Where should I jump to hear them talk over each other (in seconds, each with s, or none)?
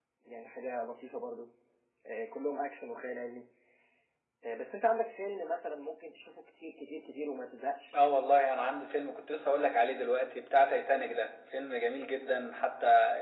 none